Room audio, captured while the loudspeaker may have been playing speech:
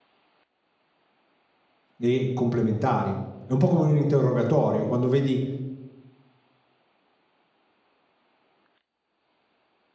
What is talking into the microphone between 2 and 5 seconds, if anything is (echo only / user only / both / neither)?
user only